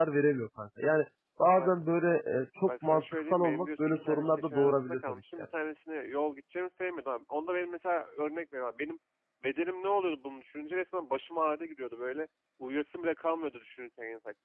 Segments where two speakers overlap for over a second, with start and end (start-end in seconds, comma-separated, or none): 2.6-5.2